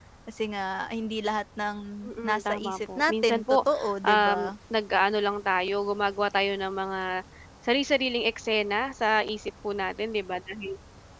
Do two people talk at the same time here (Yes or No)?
Yes